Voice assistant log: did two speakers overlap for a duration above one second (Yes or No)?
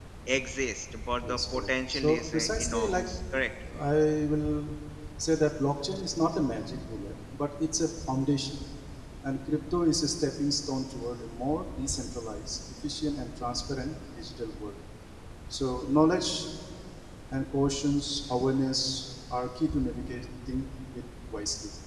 Yes